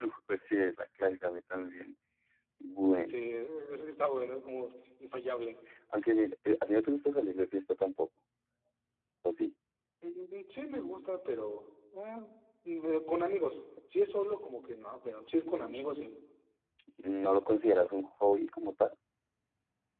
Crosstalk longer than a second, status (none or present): none